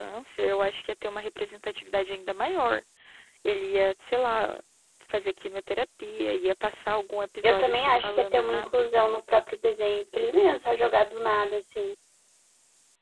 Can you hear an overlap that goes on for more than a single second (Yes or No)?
Yes